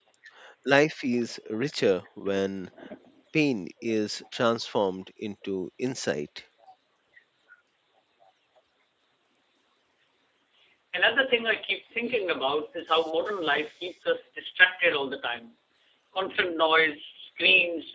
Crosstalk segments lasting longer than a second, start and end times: none

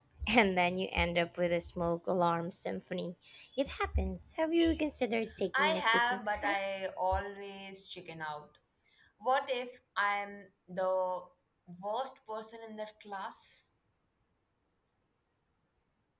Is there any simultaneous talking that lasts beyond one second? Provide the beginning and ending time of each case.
5.6-6.8

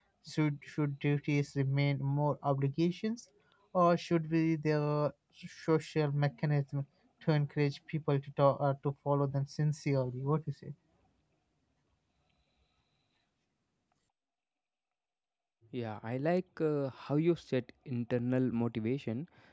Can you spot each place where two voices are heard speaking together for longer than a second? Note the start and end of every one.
none

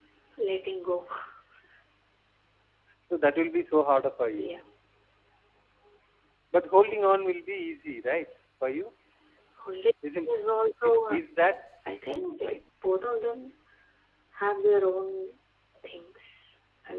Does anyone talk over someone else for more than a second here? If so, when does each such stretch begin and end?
none

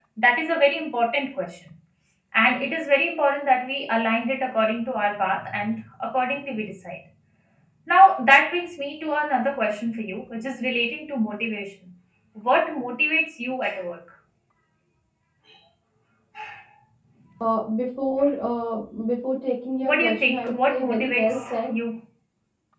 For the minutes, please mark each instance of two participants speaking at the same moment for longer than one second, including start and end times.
19.8-21.7

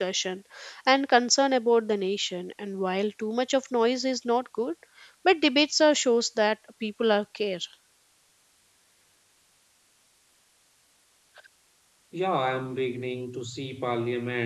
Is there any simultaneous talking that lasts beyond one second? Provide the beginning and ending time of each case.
none

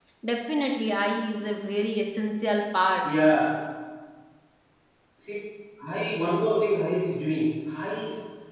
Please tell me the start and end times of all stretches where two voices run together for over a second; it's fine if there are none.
none

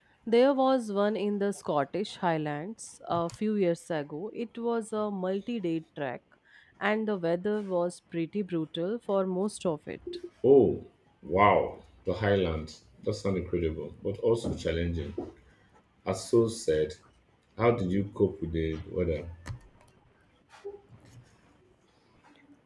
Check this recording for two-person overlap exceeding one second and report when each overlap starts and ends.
none

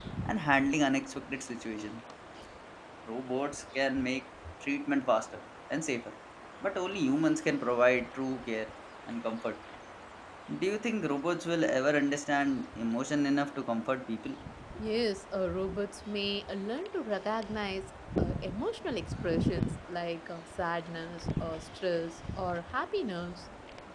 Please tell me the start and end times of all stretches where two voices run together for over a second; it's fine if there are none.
none

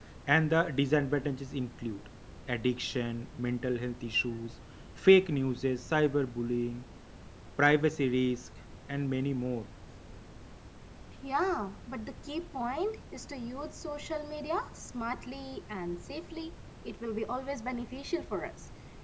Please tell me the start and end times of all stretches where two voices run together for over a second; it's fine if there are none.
none

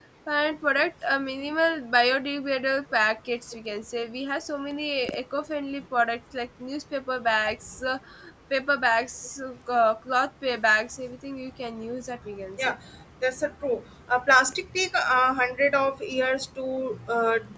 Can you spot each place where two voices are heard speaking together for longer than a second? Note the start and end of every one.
none

